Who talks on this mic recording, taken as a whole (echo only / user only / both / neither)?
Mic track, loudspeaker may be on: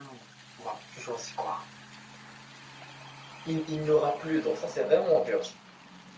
echo only